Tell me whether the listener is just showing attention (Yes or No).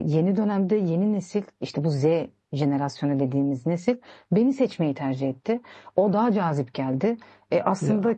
Yes